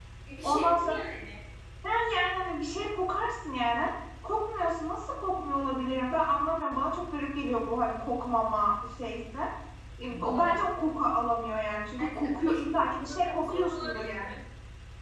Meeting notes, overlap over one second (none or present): present